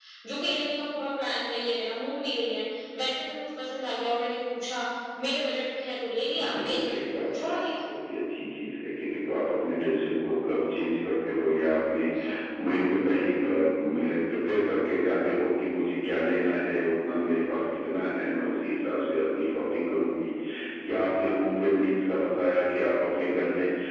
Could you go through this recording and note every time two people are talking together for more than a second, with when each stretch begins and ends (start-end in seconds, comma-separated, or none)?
6.2-7.5